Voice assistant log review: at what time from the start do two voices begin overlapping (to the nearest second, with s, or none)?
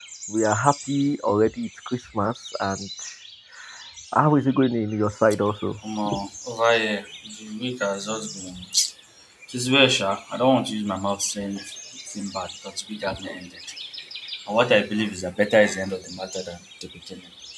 none